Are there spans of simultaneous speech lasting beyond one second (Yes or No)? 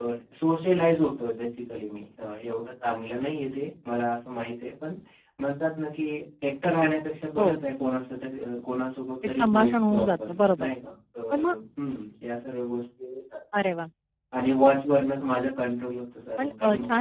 Yes